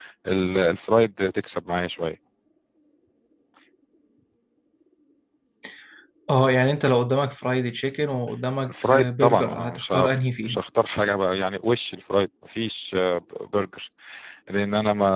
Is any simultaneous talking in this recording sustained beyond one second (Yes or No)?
Yes